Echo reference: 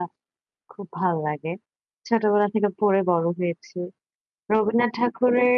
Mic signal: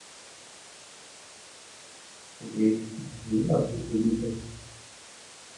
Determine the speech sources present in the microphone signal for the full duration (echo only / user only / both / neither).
user only